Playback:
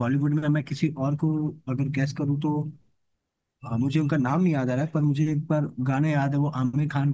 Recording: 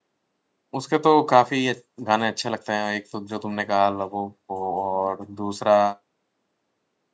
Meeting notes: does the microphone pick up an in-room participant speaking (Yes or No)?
Yes